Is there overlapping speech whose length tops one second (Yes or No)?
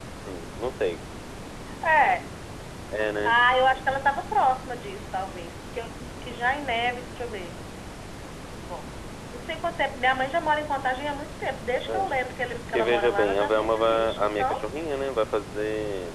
Yes